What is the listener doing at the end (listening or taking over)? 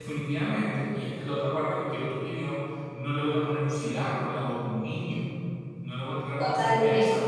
taking over